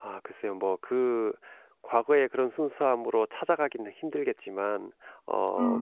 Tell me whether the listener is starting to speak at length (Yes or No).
No